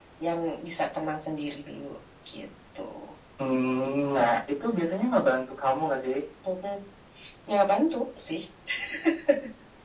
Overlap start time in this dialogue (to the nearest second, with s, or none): none